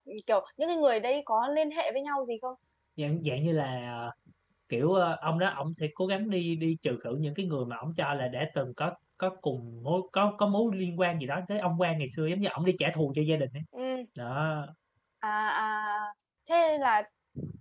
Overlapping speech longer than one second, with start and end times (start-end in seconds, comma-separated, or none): none